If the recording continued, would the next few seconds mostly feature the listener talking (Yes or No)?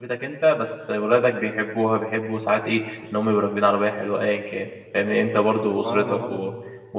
No